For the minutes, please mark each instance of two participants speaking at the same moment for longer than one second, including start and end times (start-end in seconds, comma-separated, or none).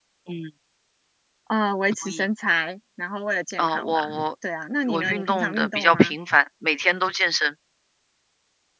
4.9-6.2